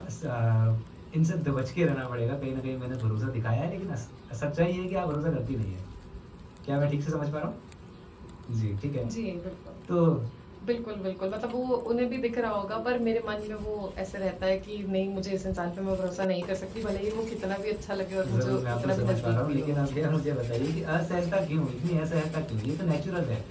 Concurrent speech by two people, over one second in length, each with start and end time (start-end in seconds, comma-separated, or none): 18.2-20.1